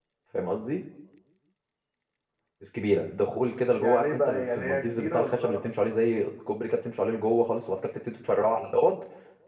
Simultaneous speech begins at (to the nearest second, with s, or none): 4 s